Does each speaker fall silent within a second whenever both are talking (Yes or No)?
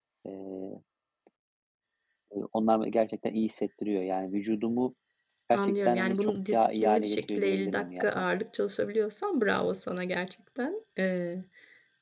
No